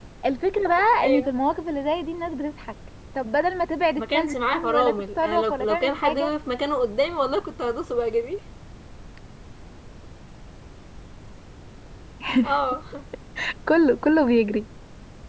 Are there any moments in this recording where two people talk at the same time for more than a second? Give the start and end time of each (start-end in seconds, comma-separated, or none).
4.0-6.3